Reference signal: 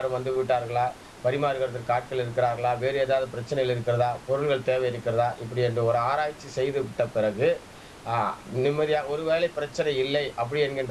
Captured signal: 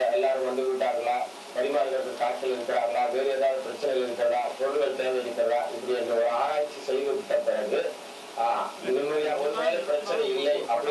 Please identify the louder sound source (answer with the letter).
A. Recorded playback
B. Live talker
A